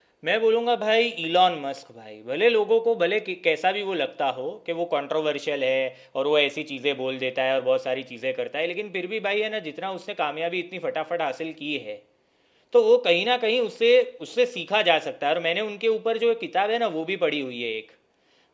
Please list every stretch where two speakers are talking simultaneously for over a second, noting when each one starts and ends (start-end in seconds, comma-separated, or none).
none